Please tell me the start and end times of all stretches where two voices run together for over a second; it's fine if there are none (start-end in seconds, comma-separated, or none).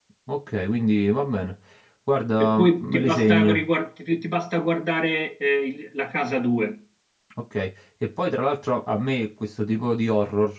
2.4-3.6